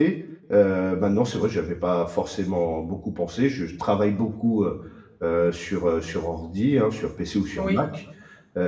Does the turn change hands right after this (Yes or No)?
No